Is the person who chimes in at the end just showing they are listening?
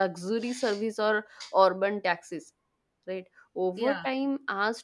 Yes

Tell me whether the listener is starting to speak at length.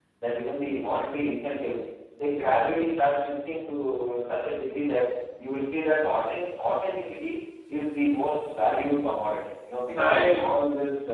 No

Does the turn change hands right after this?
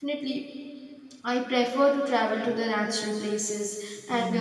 No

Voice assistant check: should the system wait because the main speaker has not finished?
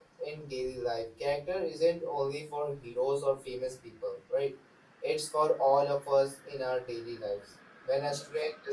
Yes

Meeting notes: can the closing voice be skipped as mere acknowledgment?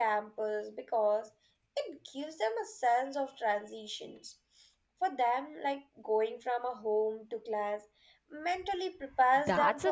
No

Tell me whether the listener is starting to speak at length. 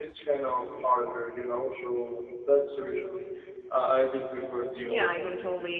Yes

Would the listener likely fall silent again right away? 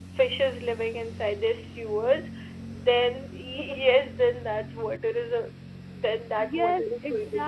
No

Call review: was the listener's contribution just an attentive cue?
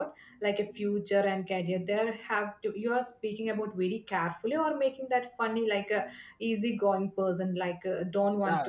Yes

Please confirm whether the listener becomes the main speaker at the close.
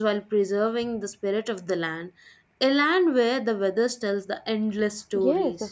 Yes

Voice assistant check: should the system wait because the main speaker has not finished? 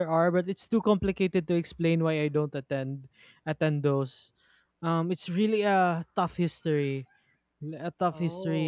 Yes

